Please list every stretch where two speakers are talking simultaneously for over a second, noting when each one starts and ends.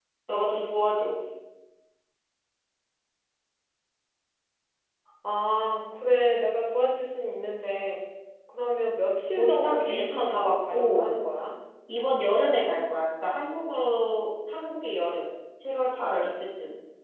9.4-11.2

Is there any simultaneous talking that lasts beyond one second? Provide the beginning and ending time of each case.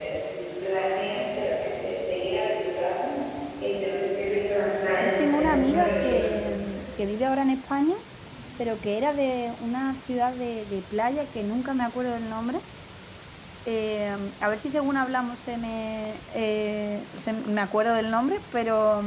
5.0-6.3

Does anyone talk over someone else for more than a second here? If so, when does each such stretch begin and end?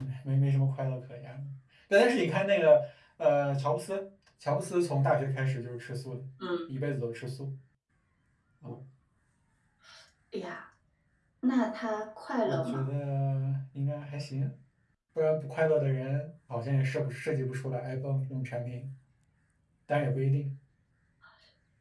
none

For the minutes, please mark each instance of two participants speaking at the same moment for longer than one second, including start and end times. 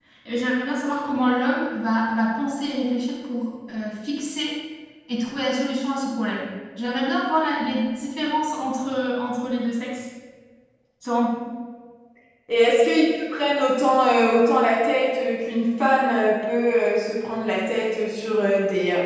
none

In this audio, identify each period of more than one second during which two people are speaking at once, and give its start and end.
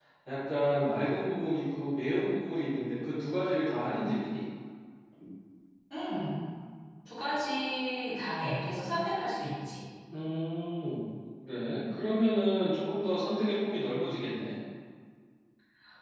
none

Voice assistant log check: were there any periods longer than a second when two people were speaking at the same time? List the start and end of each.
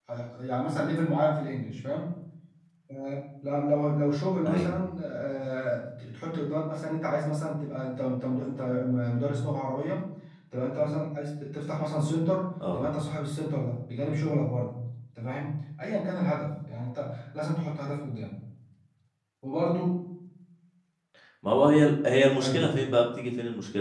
none

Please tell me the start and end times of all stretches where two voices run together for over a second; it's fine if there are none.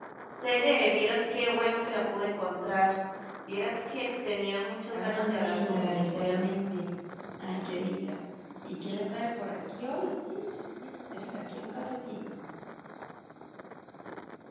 4.9-6.4

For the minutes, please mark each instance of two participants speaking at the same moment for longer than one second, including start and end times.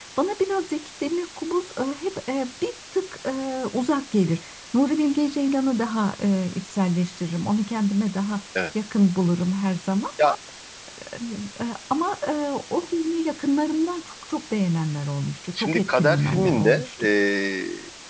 15.6-17.1

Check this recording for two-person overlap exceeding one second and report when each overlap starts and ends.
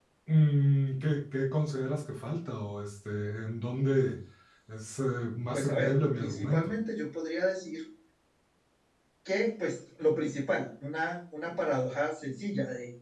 5.5-6.7

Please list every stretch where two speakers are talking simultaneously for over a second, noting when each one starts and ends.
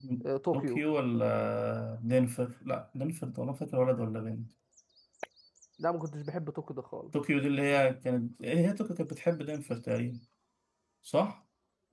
none

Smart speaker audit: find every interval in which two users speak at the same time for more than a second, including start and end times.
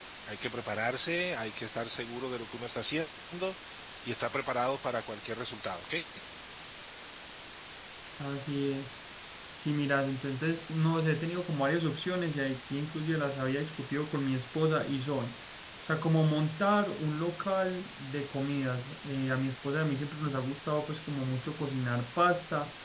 none

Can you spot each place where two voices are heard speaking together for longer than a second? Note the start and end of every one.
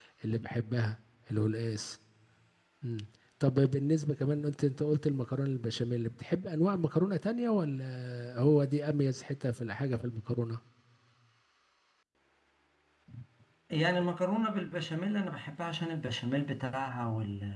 none

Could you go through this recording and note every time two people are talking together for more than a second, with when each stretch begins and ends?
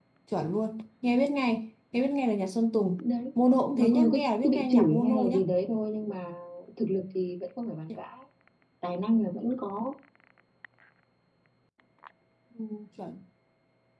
3.8-5.5

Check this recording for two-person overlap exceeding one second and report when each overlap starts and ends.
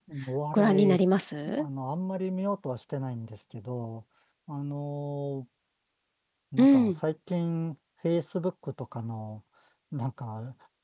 none

